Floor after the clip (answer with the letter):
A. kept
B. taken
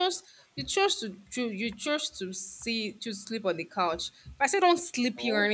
A